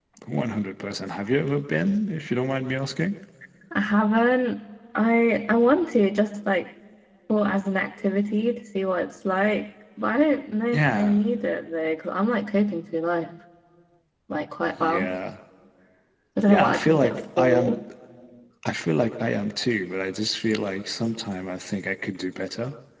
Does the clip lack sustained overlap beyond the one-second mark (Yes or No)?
No